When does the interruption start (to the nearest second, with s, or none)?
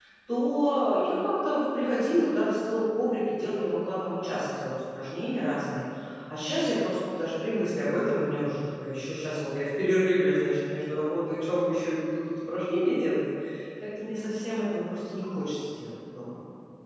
none